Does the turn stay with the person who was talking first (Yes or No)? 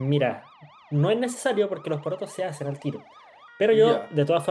Yes